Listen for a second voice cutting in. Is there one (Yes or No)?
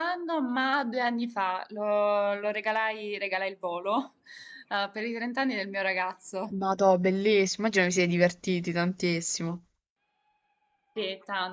No